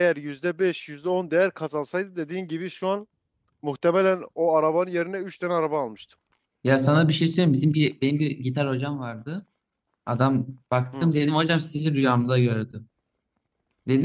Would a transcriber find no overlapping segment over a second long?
Yes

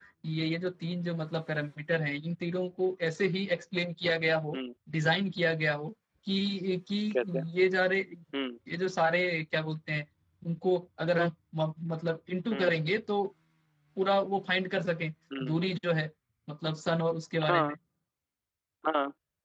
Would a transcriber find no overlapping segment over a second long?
Yes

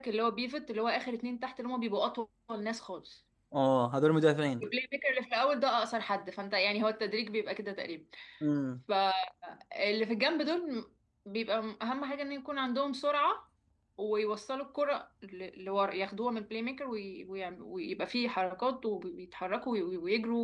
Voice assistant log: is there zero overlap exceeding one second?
Yes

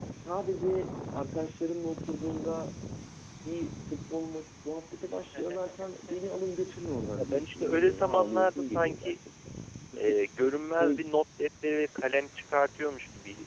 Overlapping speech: Yes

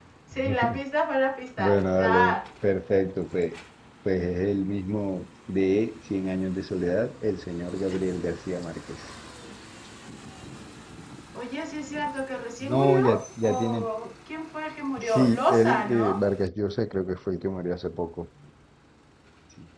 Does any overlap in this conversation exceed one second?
Yes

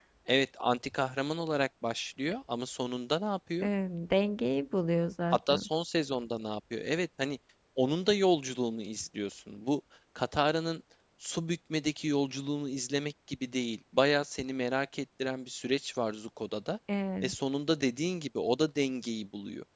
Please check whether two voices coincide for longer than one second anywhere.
No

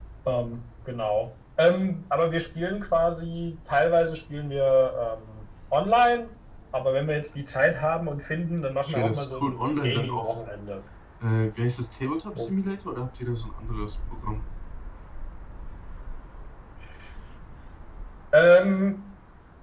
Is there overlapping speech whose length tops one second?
Yes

